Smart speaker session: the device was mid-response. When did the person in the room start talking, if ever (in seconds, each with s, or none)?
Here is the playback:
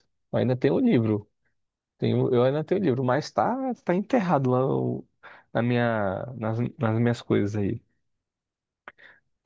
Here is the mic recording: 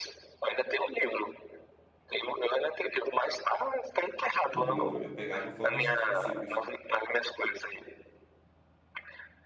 4.5 s